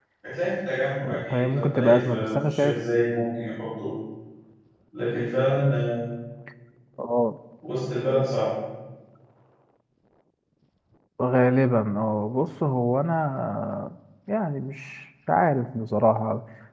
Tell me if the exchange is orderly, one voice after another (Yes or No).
No